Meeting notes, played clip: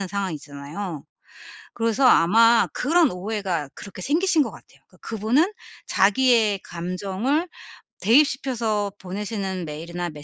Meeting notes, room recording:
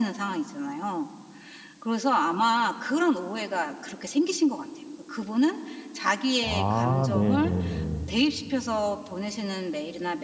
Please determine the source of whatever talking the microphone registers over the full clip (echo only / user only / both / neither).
both